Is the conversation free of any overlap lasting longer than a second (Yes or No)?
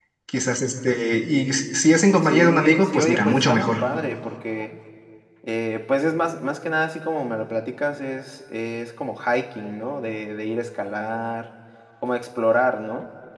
No